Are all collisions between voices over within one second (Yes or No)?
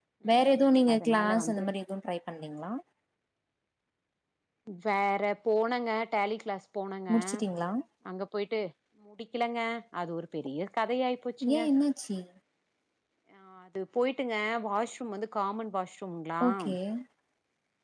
No